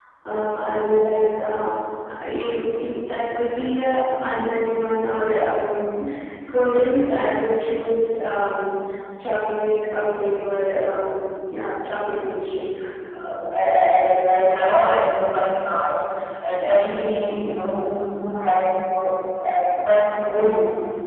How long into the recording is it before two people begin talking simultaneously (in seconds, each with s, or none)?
none